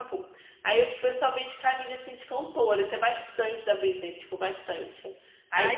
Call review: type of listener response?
listening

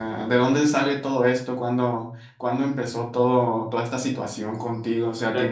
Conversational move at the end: taking over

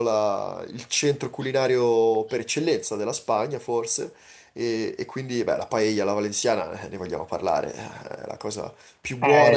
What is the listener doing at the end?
listening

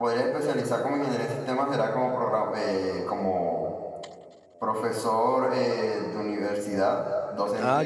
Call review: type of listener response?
listening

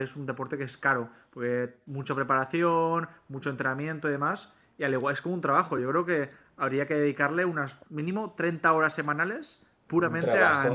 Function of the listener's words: taking over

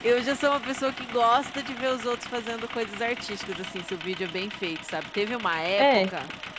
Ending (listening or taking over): listening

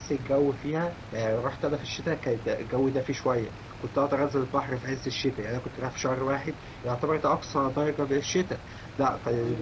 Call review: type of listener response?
listening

